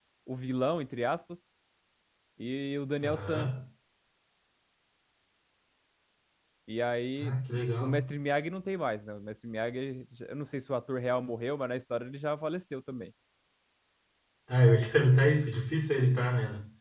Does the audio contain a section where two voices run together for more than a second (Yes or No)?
No